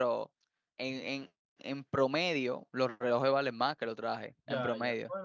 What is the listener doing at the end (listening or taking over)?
taking over